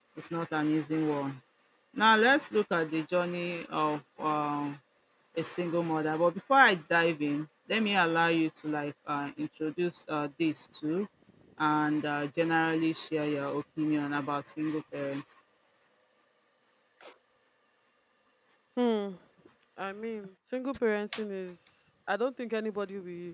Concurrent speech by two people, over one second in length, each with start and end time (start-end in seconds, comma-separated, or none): none